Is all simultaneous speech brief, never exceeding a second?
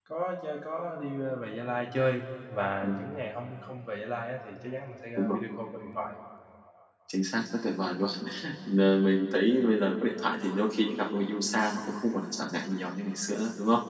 Yes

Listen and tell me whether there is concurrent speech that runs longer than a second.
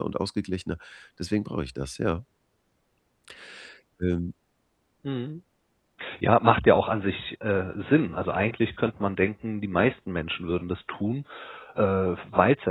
No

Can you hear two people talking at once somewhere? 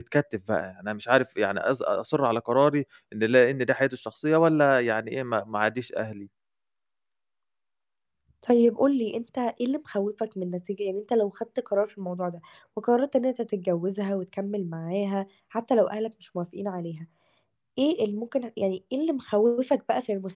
No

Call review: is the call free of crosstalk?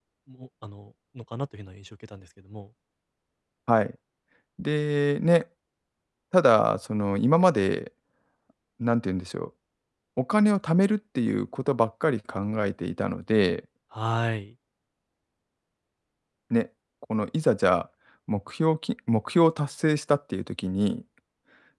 Yes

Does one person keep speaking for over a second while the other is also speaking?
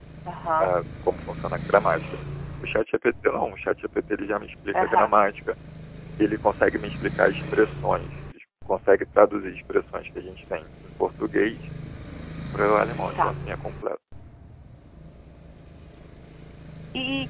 No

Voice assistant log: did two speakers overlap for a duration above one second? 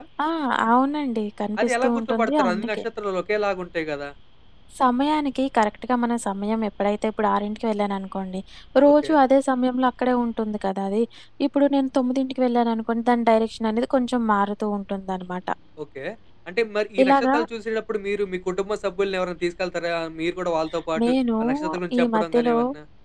Yes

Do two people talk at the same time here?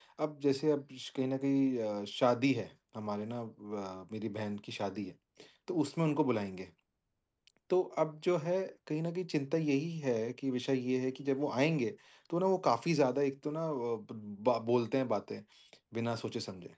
No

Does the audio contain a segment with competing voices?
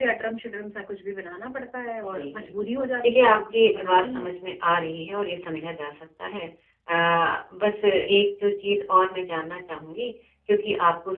Yes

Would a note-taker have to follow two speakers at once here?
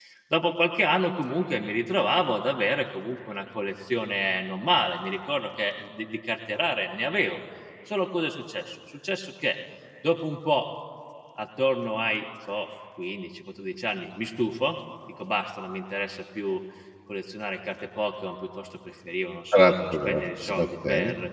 Yes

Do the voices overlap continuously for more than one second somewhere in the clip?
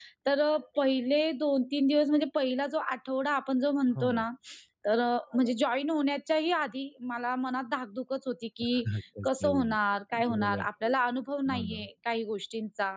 No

